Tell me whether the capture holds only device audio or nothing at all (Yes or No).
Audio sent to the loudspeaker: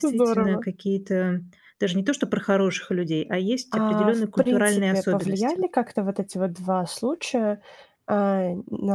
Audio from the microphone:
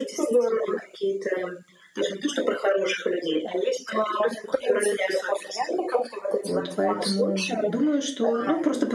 No